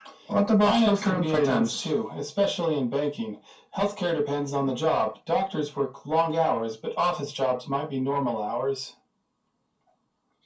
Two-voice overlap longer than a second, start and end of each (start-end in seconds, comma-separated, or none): 0.6-1.9